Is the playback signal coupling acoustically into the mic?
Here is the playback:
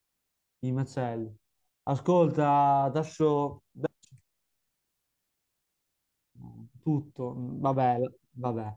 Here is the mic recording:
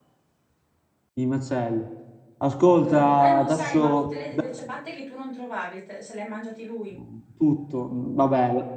Yes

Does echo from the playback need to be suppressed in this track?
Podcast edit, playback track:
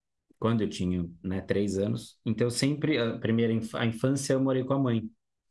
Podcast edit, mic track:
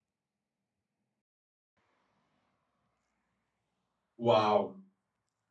No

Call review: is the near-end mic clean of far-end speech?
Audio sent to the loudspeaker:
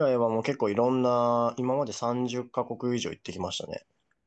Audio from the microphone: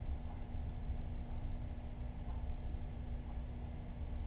Yes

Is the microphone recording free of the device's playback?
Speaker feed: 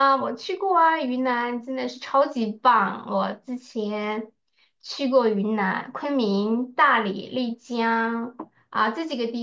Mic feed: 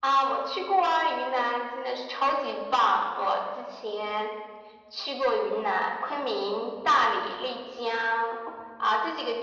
No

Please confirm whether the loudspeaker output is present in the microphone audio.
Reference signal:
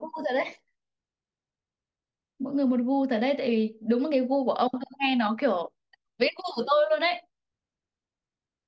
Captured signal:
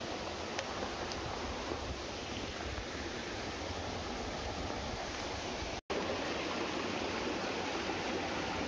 No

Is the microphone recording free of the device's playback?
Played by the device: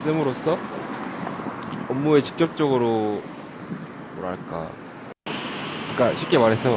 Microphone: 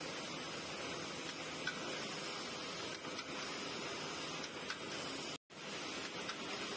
Yes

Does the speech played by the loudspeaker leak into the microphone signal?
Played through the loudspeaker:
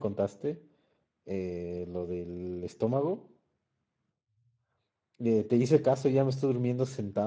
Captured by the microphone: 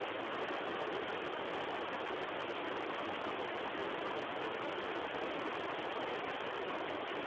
No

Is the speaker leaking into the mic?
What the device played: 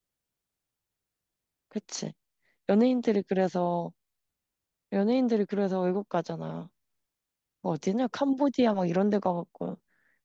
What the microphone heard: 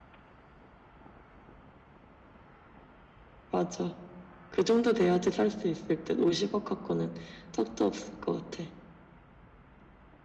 No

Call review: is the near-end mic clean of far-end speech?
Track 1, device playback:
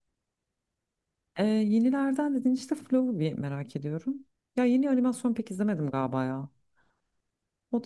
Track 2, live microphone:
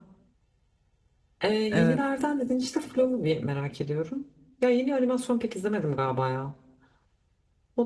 No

